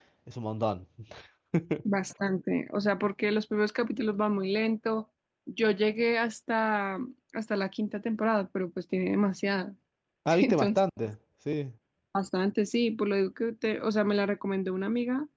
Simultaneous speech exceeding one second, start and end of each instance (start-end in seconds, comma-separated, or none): none